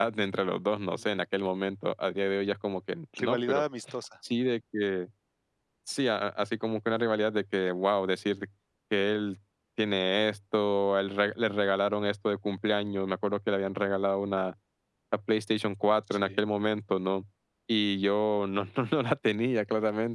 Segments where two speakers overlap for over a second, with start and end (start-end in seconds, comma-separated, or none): none